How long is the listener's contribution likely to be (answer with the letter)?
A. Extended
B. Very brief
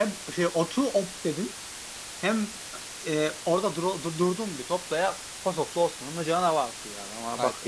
A